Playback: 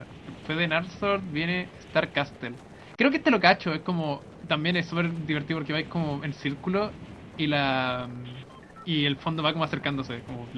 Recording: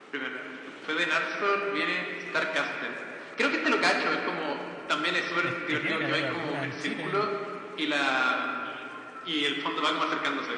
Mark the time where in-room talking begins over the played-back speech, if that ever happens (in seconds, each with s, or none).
5.4 s